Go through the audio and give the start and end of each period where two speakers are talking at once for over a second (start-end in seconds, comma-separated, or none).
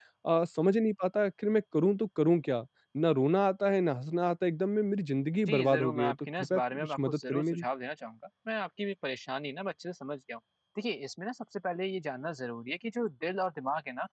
5.5-7.6